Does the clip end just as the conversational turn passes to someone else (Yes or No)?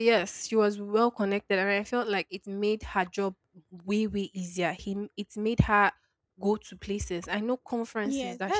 Yes